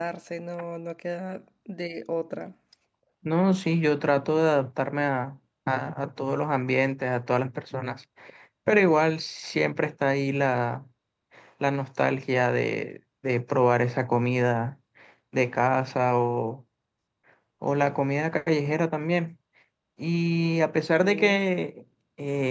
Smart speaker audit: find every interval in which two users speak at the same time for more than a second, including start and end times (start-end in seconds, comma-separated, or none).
none